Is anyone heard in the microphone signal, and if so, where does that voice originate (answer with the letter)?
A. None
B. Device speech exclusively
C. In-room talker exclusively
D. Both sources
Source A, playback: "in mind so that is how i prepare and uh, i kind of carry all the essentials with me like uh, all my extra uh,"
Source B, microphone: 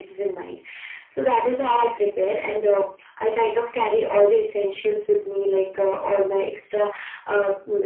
B